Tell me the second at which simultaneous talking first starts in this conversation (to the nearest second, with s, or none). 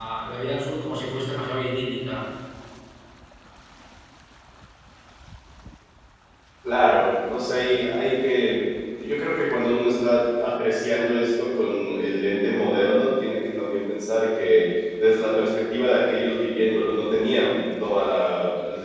none